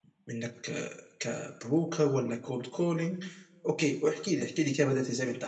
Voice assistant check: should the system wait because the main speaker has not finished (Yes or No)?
No